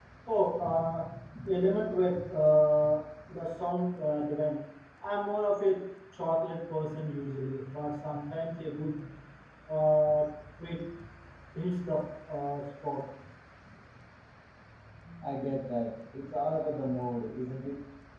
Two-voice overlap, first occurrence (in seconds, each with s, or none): none